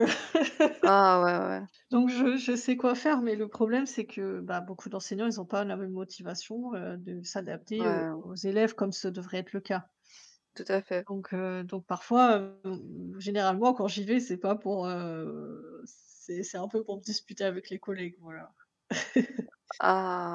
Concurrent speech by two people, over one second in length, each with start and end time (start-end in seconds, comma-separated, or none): none